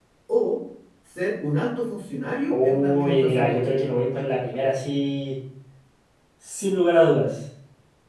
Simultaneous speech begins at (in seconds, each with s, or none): 2.5 s